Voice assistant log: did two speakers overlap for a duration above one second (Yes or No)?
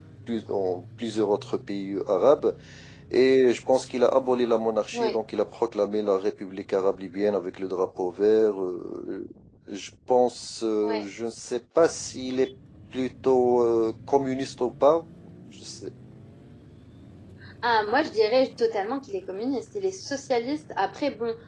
No